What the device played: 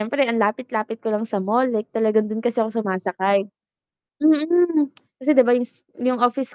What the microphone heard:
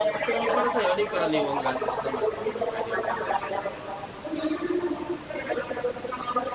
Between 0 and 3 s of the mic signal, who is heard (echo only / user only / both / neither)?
both